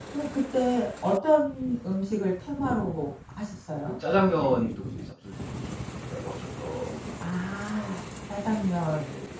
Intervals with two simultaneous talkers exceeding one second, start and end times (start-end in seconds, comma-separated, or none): none